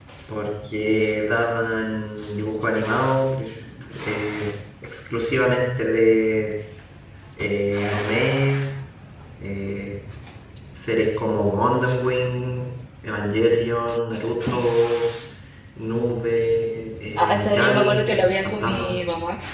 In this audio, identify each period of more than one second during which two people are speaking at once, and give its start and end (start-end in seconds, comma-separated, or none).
17.2-18.9